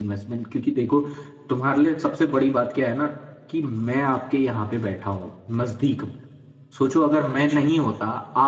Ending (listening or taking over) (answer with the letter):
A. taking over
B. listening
B